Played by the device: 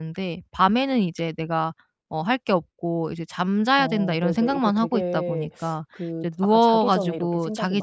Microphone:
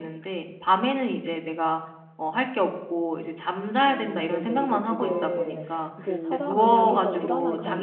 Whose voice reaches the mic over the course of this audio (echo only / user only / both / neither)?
both